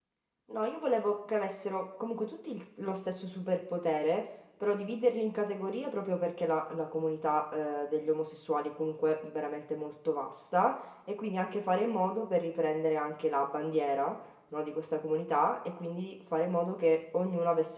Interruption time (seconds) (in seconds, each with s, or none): none